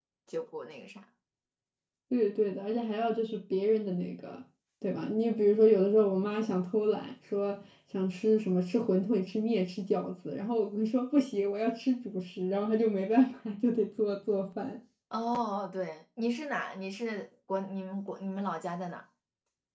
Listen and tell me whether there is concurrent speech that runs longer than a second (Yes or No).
No